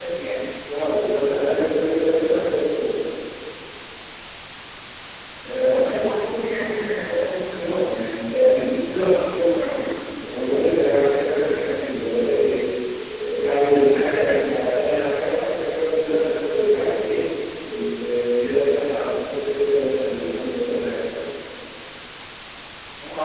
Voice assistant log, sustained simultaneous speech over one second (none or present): none